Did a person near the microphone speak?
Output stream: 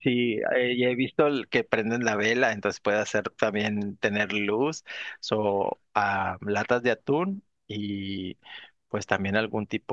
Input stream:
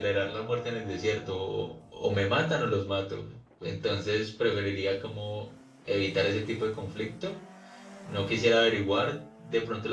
Yes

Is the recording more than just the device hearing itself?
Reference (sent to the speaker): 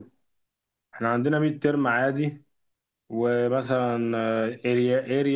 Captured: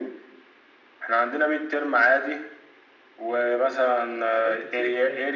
Yes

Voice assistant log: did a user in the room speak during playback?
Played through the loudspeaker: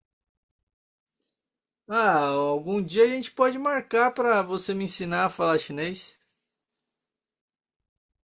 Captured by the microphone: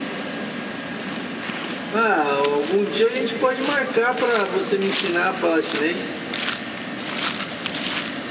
No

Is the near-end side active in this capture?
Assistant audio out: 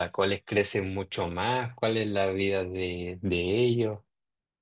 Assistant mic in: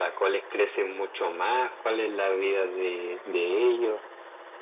No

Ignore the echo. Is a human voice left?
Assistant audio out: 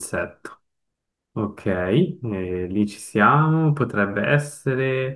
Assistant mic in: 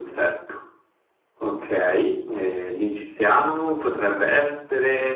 No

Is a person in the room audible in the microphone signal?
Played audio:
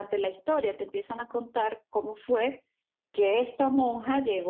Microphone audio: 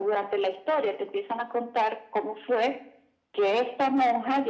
No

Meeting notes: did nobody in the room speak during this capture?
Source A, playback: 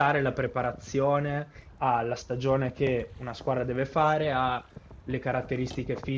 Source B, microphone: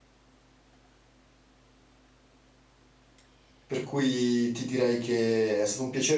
No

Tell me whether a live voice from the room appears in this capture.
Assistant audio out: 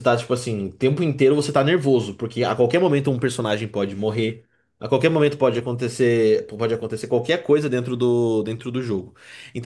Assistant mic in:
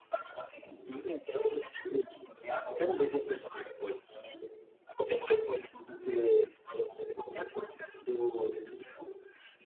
No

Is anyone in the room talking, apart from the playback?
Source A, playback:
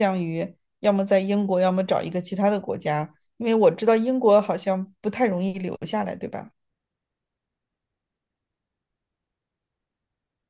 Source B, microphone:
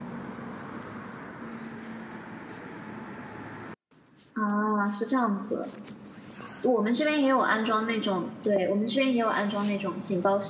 Yes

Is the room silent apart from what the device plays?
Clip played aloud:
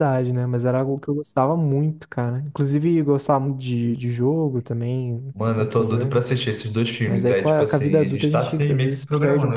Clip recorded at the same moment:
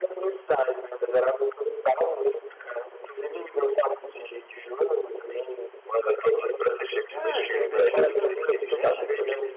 No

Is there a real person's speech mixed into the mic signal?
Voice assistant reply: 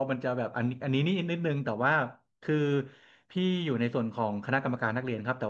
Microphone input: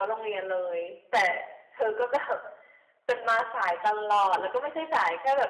Yes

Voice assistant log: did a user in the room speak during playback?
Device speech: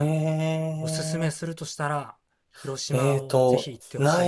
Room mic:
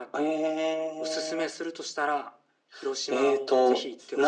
No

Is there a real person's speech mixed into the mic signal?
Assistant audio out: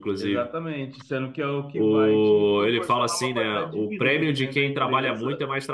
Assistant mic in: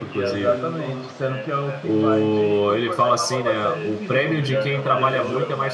Yes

